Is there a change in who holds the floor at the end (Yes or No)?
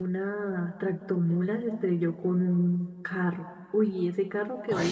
No